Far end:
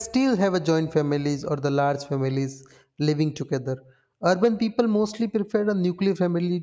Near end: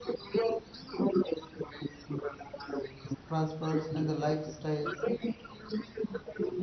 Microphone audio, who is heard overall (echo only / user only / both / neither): both